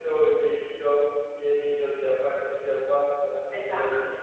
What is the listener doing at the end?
listening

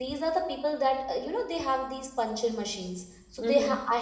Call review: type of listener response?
listening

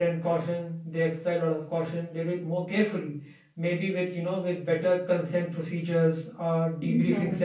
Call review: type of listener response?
listening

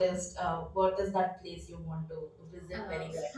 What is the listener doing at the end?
taking over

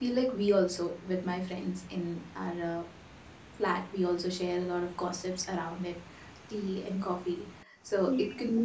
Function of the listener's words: listening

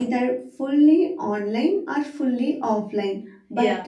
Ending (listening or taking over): listening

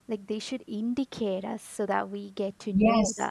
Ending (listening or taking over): taking over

